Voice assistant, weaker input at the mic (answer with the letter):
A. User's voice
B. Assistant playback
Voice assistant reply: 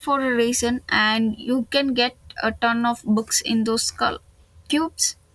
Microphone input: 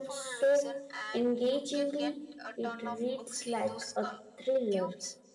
B